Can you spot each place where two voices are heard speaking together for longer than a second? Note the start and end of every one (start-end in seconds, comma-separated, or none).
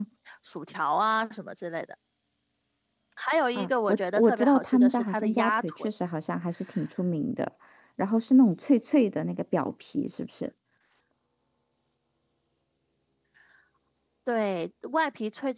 3.5-5.9